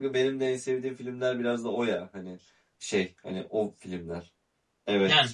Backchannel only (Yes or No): Yes